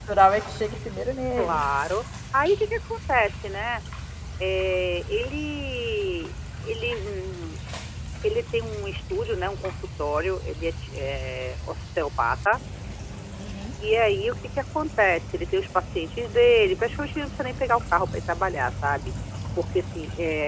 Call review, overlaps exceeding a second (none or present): none